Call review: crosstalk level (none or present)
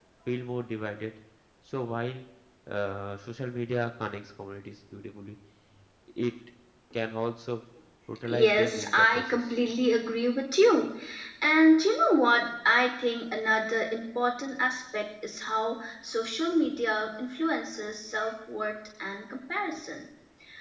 present